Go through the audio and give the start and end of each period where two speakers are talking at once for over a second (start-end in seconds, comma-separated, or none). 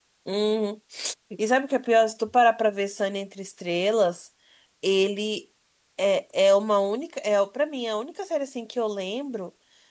none